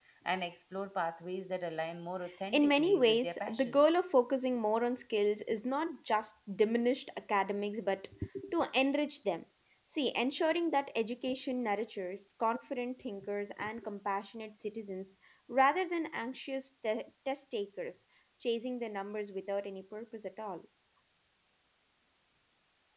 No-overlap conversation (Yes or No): No